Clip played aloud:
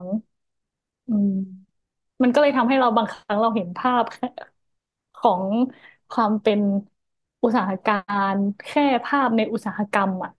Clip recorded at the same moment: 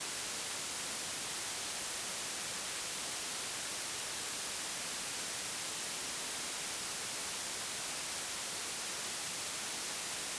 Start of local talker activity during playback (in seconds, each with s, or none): none